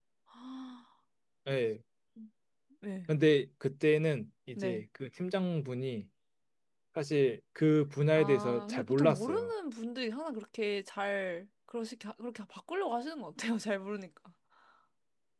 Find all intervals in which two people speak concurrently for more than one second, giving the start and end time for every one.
8.2-9.5

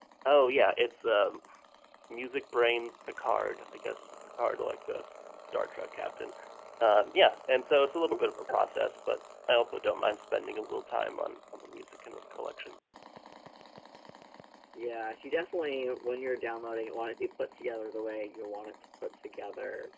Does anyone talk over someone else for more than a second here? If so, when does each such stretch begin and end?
none

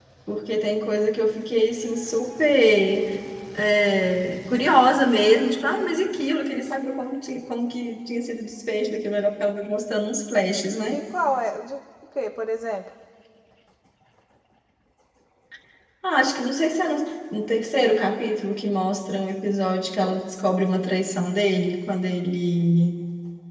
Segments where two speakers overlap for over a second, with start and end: none

